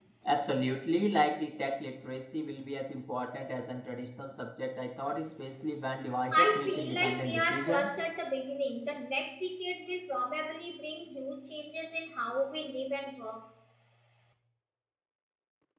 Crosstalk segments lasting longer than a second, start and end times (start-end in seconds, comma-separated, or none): 6.3-7.9